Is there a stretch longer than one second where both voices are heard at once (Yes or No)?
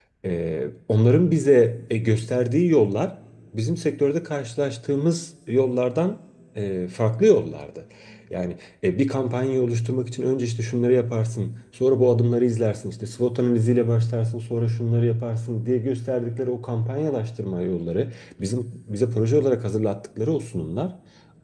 No